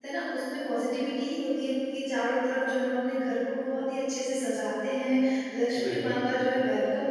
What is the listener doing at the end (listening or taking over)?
listening